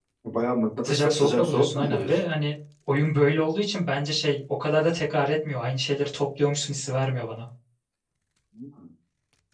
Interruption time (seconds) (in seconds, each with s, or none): 0.8 s